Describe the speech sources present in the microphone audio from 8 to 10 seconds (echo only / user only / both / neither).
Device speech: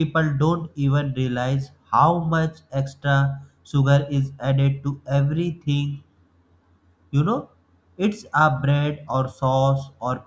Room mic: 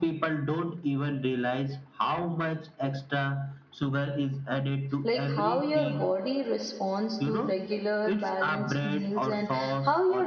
both